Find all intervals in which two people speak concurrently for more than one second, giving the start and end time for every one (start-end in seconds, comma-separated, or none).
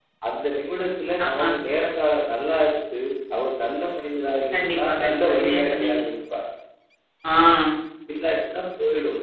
4.5-6.0